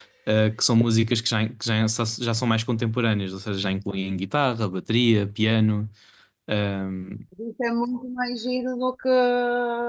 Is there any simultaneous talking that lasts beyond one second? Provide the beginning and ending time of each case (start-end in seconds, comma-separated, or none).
none